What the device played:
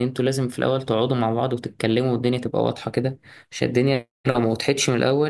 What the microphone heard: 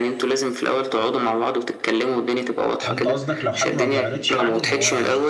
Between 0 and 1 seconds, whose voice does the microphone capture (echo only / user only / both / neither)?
echo only